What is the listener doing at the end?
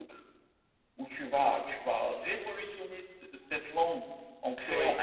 listening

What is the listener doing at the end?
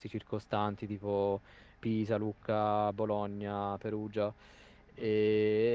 listening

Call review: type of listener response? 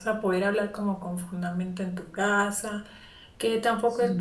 listening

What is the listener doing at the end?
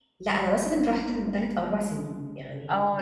taking over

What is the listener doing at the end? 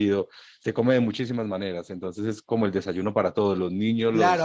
taking over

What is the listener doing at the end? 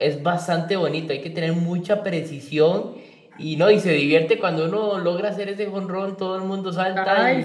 taking over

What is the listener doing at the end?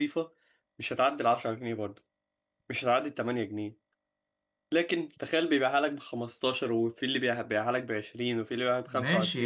taking over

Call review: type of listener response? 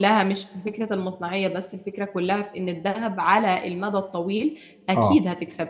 listening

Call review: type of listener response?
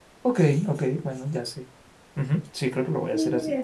taking over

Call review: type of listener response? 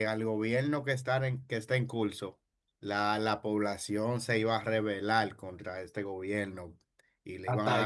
listening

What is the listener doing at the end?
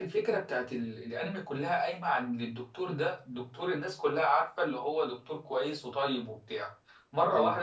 listening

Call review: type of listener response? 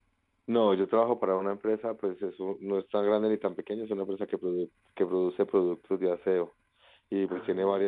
listening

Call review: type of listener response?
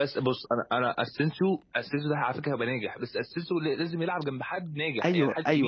taking over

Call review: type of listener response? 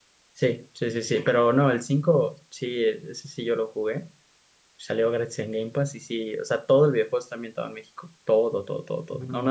listening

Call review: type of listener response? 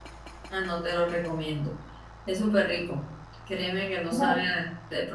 listening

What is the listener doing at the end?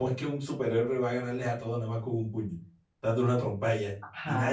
taking over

